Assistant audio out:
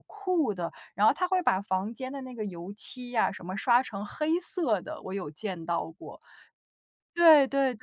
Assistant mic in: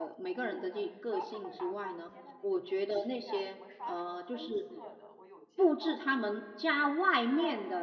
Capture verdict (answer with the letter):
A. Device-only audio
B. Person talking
B